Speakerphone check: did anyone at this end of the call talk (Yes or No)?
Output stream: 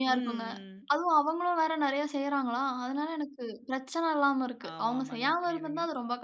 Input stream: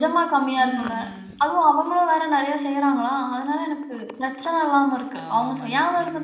No